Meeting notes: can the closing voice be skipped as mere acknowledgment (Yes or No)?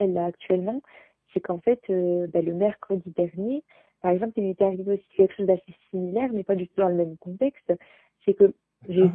Yes